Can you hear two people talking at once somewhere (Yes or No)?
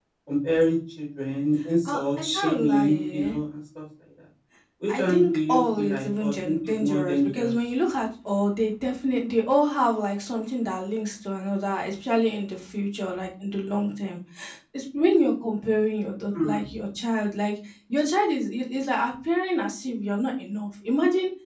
Yes